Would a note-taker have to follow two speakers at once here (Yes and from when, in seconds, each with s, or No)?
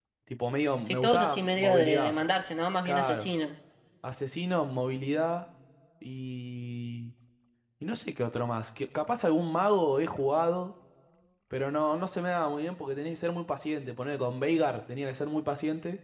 Yes, from 0.8 s